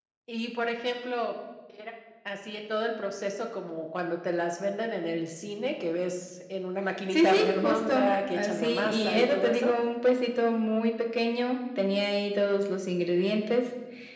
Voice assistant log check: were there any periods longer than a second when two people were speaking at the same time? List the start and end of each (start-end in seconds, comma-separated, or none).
7.1-9.7